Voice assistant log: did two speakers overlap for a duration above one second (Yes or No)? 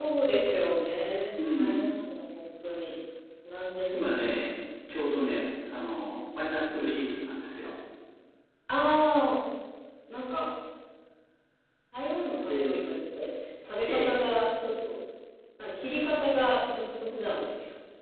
No